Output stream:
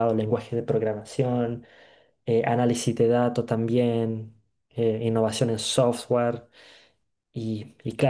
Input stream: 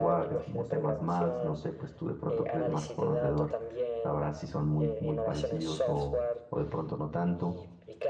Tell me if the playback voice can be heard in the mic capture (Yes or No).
Yes